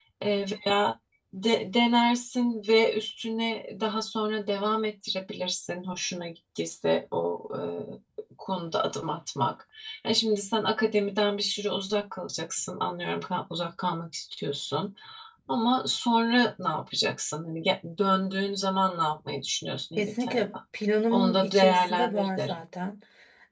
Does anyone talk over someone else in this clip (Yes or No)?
Yes